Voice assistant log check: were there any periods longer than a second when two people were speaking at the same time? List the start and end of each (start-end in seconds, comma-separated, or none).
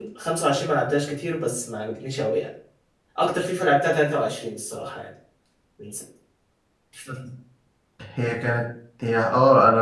none